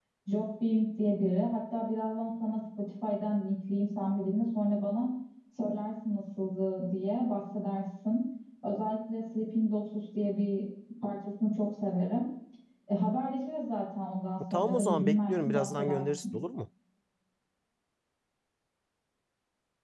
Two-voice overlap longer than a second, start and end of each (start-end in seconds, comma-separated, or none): 14.5-16.2